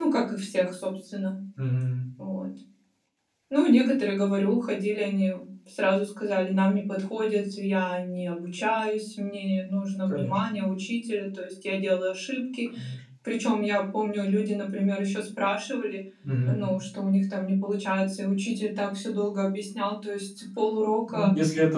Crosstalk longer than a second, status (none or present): none